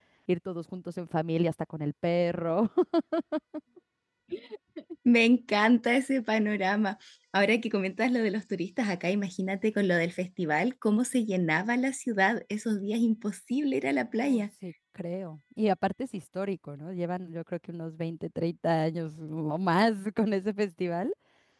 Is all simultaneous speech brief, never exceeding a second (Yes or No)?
Yes